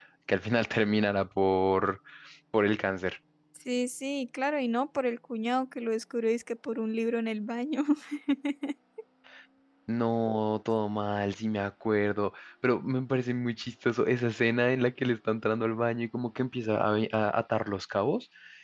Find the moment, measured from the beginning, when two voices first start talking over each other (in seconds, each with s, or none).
none